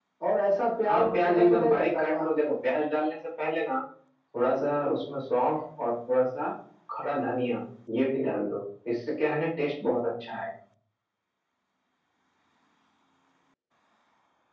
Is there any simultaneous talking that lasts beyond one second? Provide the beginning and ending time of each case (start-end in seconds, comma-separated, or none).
0.9-2.8